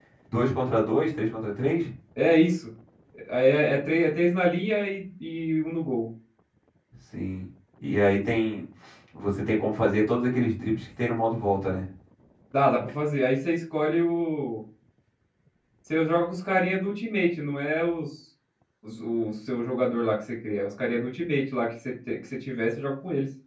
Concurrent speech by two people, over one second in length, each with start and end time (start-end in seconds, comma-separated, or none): none